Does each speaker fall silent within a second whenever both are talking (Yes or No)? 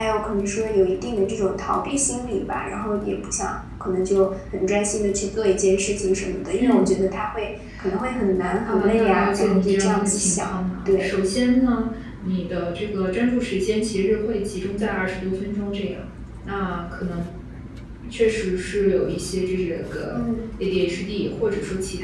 No